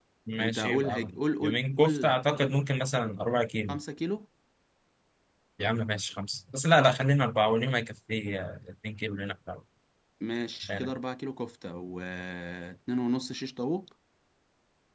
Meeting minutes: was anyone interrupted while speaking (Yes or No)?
Yes